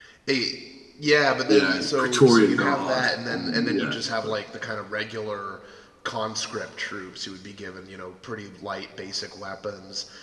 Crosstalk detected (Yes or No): Yes